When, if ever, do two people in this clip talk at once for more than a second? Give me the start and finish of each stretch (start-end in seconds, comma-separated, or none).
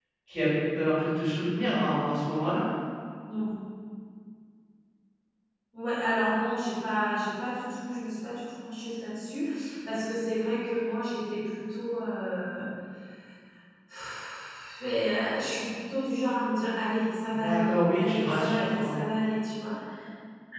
17.3-19.0